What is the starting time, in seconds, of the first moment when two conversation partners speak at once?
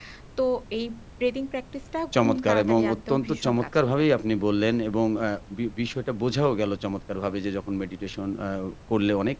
2.1 s

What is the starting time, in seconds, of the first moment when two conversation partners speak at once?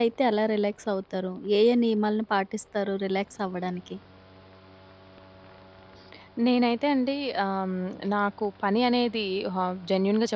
none

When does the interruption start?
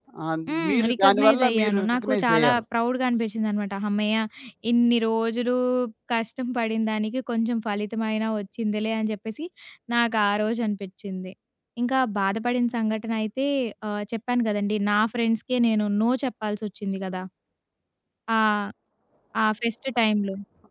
0.7 s

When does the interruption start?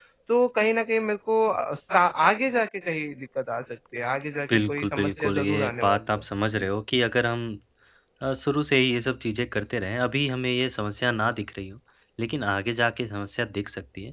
4.5 s

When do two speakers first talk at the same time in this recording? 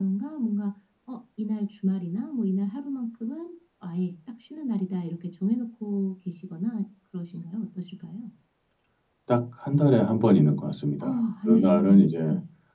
11.0 s

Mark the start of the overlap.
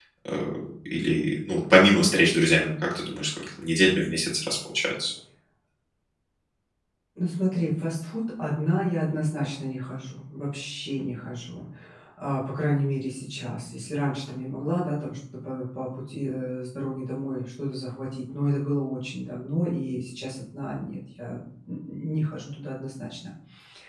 none

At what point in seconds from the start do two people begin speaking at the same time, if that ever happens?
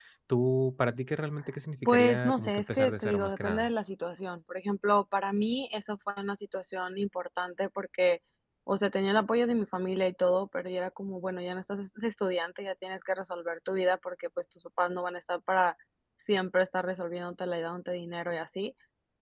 1.9 s

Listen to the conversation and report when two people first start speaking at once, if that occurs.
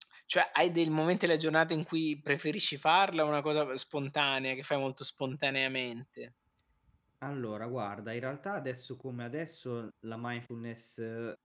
none

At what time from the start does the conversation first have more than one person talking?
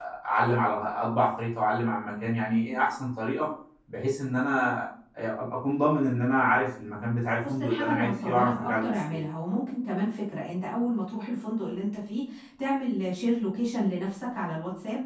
7.4 s

